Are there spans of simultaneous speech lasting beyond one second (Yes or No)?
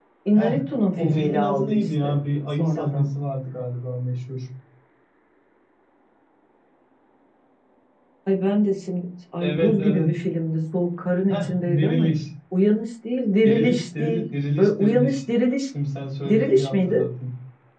Yes